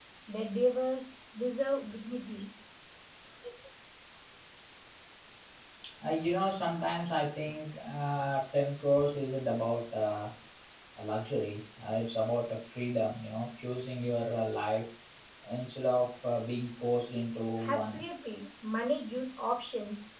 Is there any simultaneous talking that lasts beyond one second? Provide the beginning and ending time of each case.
none

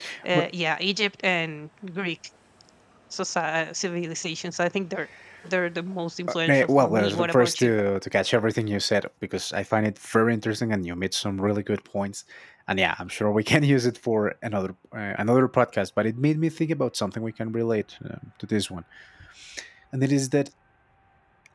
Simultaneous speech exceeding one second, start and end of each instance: 6.5-7.7

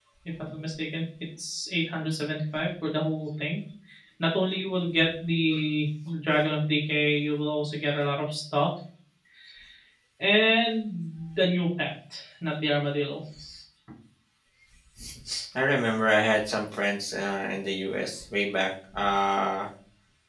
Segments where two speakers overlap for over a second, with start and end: none

